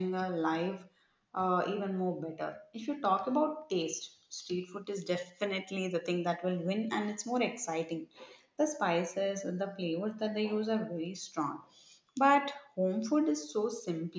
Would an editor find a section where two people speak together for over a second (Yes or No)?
No